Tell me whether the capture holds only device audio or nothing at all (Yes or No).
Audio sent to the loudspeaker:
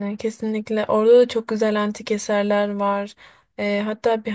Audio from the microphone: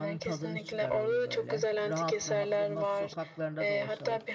No